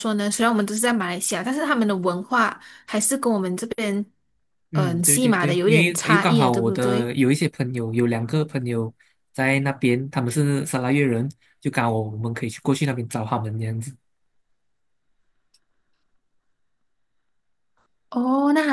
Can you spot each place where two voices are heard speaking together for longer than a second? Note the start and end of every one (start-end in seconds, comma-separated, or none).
4.8-7.1